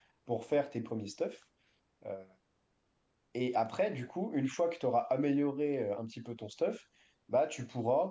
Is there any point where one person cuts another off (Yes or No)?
No